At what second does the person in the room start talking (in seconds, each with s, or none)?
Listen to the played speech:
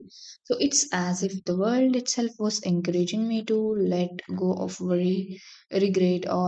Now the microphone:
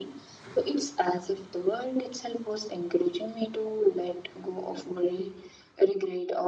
none